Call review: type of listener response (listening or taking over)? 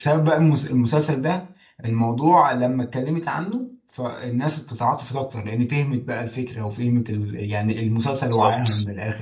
listening